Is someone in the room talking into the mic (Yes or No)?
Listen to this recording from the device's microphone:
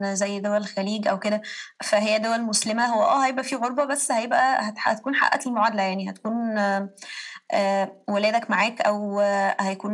No